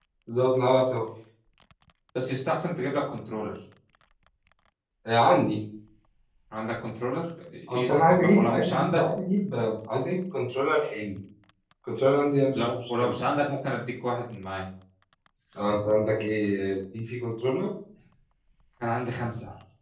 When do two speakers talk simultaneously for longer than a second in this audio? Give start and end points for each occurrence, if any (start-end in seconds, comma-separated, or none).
7.7-9.1